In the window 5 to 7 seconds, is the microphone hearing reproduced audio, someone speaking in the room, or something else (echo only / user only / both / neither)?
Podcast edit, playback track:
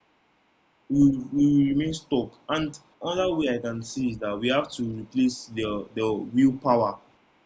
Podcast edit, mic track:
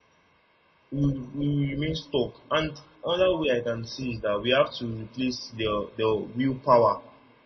echo only